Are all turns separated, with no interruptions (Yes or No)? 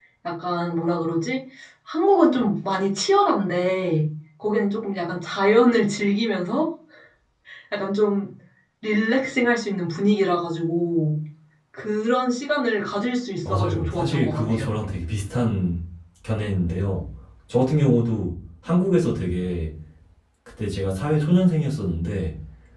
No